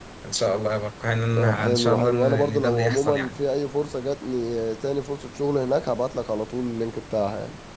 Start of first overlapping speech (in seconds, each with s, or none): 1.4 s